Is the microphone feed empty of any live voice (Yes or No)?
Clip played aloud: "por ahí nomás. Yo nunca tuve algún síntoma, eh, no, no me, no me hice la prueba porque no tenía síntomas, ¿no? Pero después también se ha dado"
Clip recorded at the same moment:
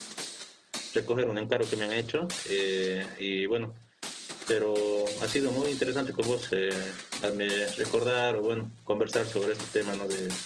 No